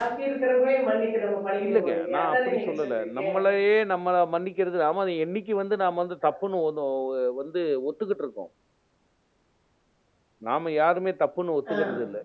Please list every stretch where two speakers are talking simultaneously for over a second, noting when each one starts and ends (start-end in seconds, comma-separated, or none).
1.6-3.2